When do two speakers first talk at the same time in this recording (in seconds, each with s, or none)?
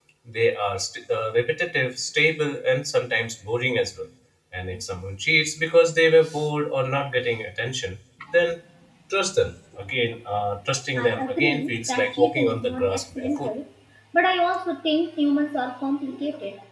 11.0 s